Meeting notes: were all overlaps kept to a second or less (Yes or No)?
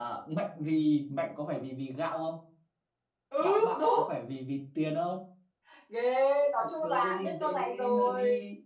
No